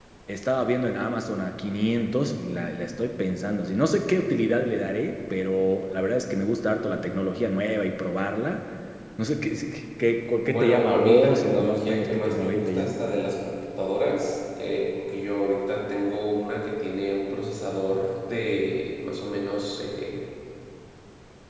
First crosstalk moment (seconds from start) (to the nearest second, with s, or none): 10 s